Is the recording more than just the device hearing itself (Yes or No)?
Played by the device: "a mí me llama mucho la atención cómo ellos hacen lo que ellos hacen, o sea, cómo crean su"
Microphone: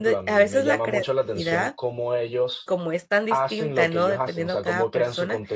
Yes